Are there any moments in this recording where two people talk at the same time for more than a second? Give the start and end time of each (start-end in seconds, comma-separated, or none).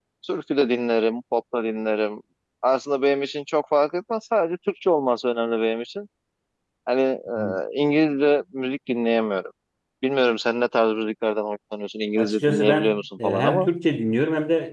12.2-13.7